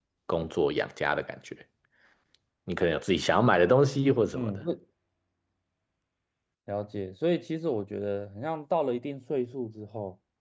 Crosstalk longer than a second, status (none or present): none